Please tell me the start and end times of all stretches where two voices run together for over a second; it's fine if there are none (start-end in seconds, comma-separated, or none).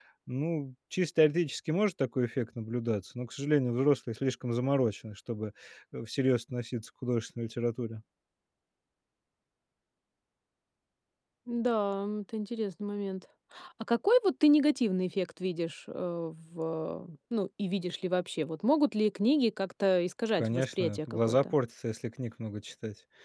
20.3-21.5